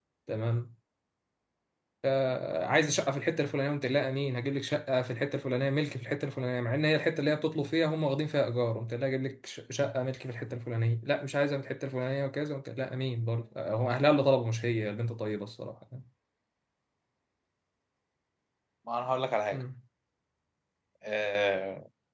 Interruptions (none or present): none